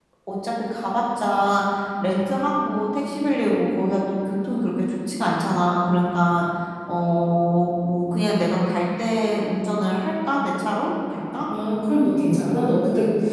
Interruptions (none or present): none